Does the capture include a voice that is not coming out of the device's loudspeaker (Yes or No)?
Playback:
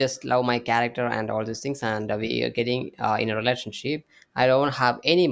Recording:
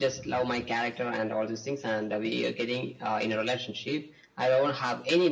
No